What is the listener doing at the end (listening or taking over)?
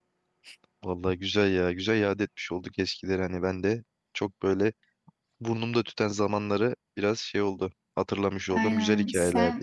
taking over